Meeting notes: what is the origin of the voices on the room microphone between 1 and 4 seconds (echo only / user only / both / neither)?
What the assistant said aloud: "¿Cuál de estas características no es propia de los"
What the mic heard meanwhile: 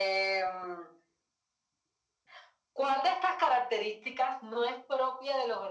echo only